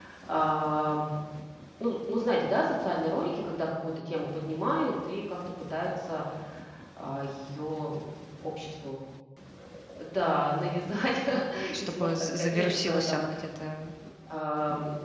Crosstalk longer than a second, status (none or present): present